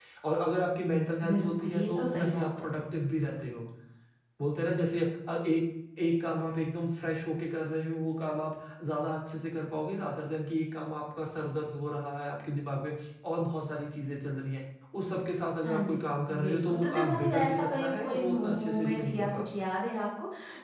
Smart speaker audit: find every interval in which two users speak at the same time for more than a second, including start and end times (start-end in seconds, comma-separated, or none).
1.3-2.7, 16.4-19.4